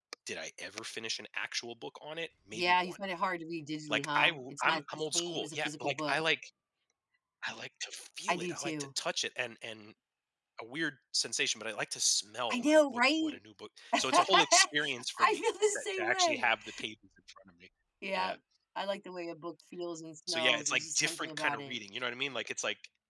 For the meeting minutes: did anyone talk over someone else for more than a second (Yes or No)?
Yes